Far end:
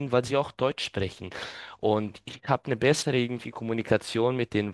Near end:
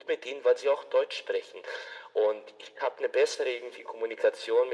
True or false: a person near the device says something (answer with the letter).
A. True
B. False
B